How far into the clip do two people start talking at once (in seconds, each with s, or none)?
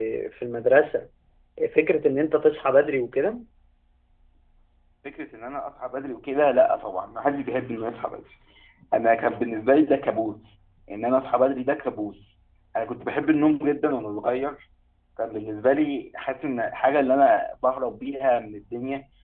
none